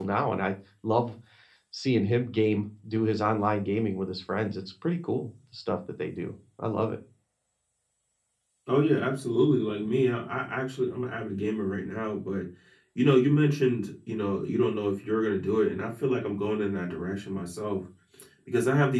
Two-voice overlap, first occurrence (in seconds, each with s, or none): none